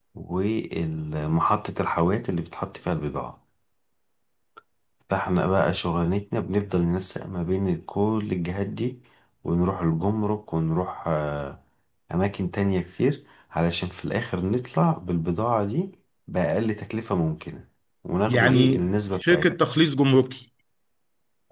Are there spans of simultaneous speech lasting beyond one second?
Yes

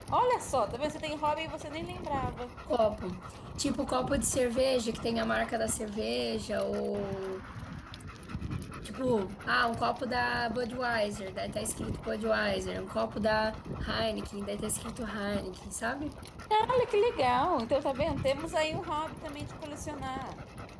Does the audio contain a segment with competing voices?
No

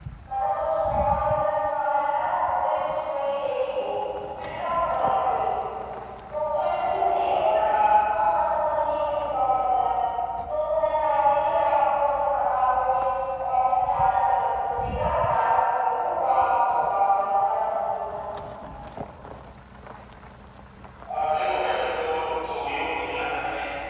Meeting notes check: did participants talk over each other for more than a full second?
No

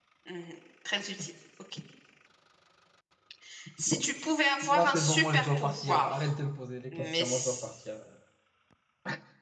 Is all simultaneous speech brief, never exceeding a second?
No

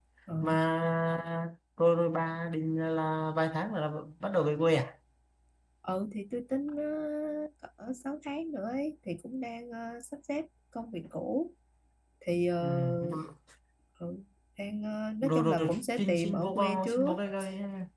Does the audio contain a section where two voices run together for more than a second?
Yes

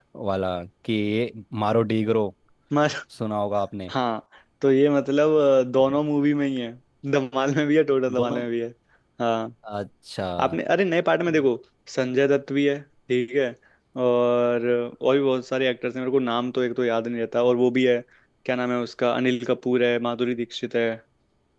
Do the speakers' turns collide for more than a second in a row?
No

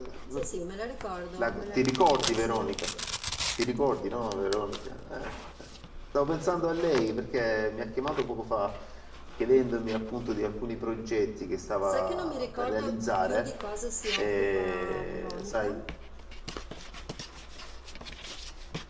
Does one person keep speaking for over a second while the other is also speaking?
Yes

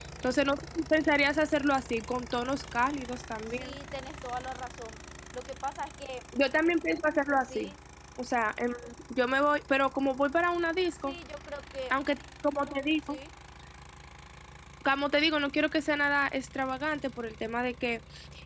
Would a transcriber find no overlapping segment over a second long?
Yes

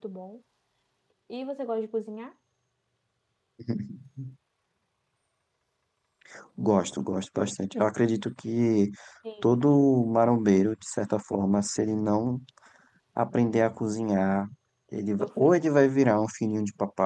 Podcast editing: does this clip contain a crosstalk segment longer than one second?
No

